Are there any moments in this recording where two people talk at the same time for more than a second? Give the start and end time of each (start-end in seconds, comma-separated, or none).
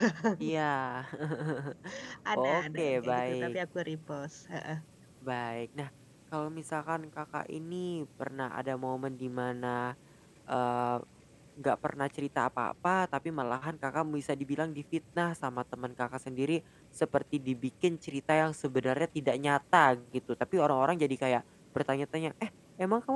2.4-3.5